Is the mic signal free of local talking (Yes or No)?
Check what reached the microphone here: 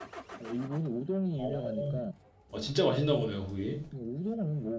No